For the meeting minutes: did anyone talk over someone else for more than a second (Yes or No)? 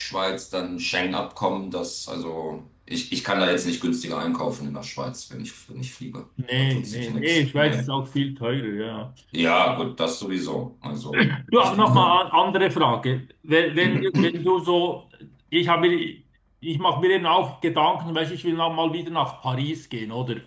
Yes